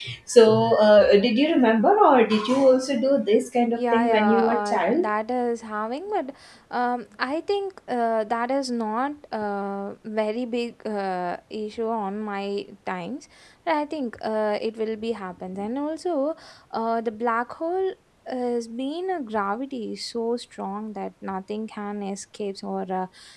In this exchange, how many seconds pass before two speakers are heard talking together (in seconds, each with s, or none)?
3.7 s